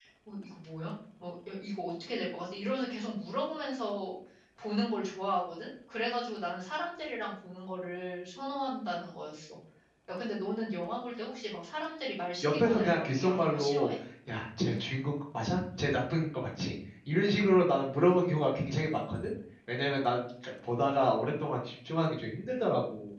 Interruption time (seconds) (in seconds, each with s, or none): 12.4 s